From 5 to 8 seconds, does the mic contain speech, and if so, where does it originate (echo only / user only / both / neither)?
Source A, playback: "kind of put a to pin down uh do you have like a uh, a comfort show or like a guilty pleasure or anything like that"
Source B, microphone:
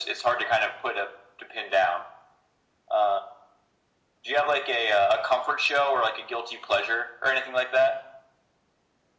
echo only